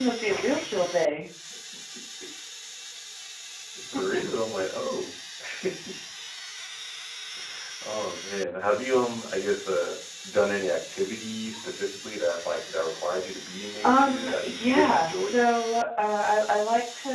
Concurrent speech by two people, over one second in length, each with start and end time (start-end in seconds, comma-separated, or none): 13.8-15.5